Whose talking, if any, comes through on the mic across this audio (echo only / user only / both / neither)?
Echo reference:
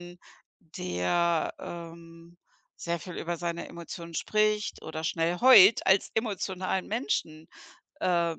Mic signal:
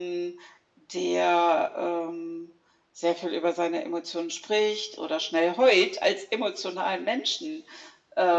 echo only